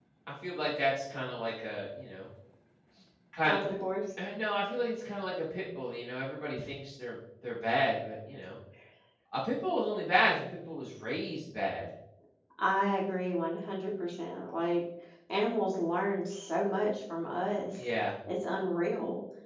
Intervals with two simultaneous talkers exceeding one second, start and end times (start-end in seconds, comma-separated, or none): none